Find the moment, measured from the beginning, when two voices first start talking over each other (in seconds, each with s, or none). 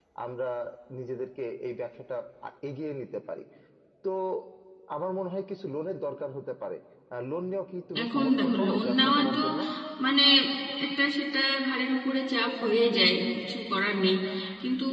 8.0 s